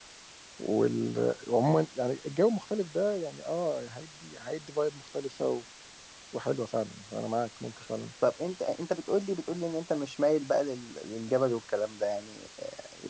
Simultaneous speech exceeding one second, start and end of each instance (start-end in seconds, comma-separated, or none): none